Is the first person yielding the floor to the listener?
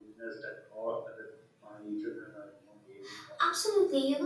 Yes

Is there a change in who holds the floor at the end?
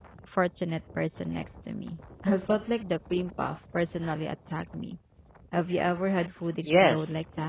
Yes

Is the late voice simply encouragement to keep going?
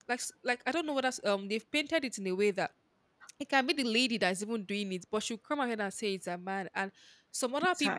Yes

